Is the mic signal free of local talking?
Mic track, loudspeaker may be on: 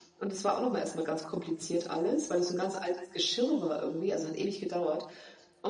Yes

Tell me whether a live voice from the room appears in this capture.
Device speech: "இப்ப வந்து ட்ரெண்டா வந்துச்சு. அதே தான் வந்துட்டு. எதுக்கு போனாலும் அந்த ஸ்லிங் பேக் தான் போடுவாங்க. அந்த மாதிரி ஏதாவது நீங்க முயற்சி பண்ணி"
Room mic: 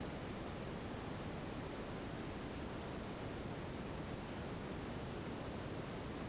No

